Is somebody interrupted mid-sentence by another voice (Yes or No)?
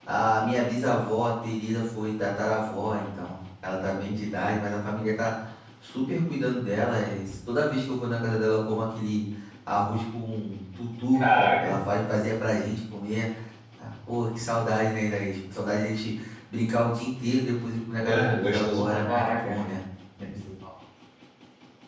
Yes